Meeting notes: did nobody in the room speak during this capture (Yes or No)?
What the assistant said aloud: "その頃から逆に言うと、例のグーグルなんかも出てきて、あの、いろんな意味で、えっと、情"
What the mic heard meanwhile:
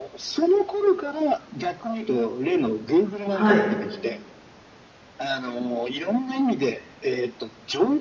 No